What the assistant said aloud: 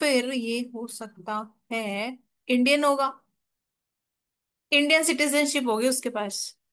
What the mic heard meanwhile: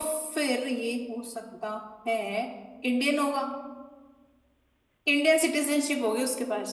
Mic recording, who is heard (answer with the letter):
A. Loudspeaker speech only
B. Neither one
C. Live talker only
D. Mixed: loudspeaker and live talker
A